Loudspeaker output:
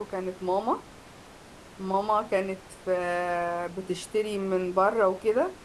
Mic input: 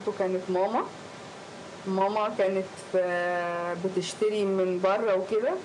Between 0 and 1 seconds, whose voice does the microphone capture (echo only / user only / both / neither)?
echo only